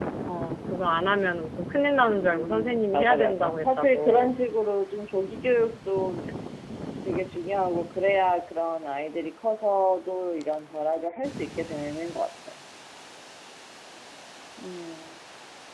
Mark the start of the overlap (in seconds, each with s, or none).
2.0 s